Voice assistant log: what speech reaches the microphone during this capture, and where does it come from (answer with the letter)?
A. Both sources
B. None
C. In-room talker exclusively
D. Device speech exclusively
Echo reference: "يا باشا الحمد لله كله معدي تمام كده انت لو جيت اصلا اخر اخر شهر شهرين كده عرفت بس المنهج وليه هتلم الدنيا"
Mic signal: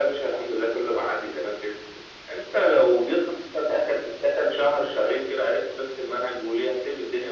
D